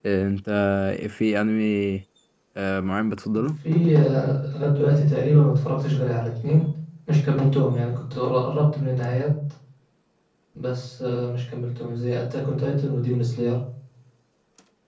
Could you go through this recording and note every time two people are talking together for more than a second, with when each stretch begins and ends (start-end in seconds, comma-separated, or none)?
none